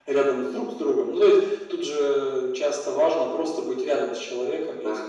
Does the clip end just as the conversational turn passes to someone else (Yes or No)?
No